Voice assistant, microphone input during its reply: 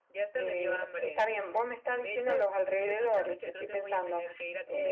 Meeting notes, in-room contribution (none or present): none